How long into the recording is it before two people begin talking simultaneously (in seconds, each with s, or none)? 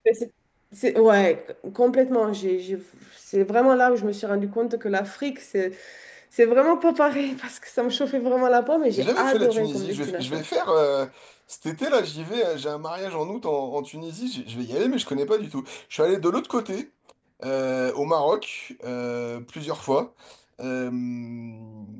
8.9 s